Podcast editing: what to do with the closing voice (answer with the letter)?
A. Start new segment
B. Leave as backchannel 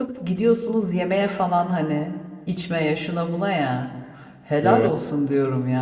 B